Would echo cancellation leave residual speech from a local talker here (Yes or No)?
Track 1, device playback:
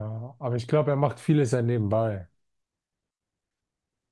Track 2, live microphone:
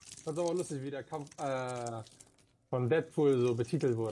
Yes